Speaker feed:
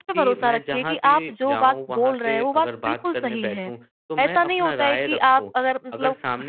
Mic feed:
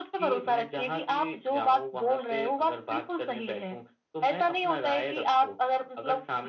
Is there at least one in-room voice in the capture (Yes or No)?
No